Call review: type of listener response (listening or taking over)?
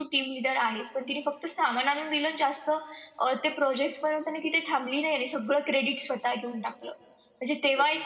listening